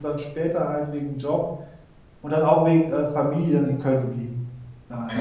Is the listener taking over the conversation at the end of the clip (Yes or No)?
Yes